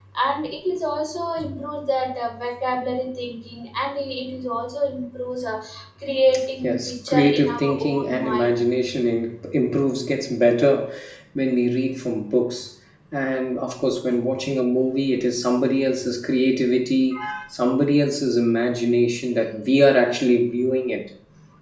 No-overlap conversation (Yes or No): No